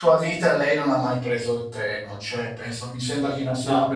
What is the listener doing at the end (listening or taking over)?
listening